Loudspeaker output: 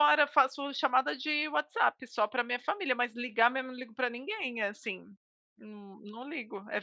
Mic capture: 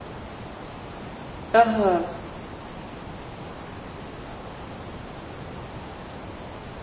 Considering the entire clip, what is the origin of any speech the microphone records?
user only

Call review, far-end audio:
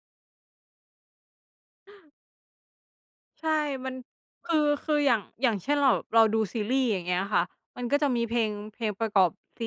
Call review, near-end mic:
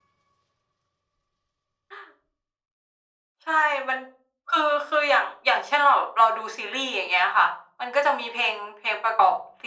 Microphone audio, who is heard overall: echo only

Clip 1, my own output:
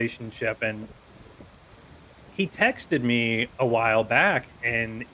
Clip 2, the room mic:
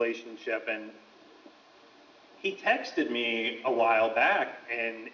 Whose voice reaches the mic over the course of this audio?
echo only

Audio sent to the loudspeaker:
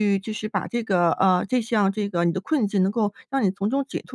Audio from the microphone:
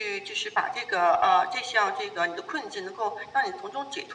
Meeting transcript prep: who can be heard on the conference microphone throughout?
echo only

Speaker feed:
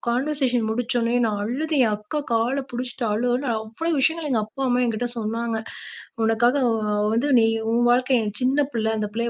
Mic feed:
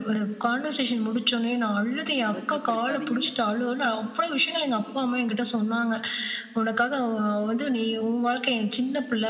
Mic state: both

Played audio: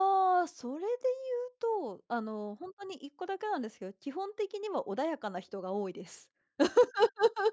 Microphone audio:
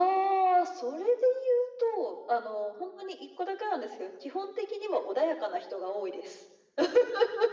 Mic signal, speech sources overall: echo only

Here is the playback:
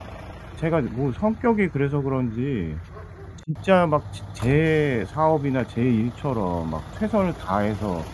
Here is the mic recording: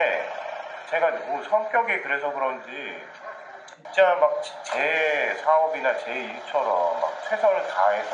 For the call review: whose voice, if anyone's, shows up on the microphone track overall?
echo only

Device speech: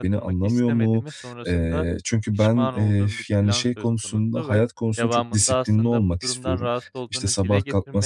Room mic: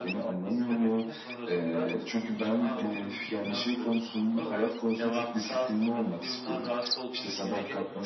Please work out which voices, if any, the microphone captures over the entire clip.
echo only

